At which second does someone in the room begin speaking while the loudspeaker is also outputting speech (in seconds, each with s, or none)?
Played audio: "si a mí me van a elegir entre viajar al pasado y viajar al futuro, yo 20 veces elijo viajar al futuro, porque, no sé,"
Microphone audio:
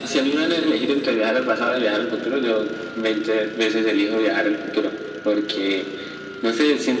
none